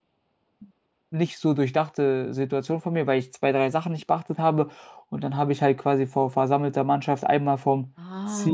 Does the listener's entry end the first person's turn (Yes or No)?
No